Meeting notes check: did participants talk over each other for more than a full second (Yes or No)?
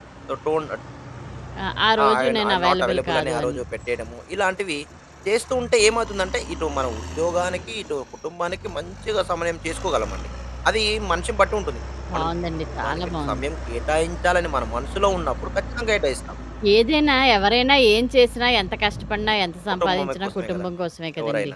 Yes